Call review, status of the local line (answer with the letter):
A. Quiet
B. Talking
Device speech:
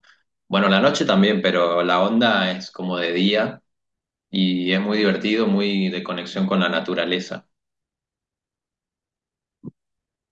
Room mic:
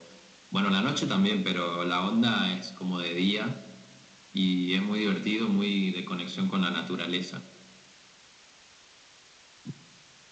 A